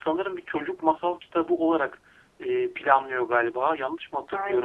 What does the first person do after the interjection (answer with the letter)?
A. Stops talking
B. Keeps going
A